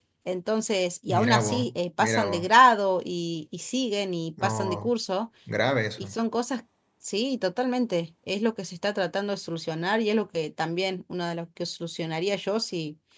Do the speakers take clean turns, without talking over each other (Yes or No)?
No